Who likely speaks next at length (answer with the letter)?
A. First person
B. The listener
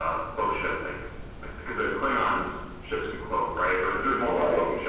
A